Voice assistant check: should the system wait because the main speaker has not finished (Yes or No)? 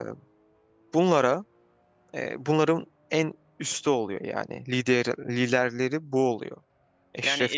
No